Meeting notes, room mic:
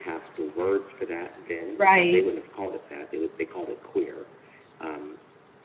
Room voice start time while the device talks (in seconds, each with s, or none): 1.8 s